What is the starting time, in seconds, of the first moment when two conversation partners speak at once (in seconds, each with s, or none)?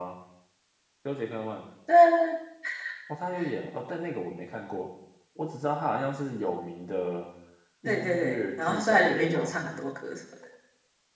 7.8 s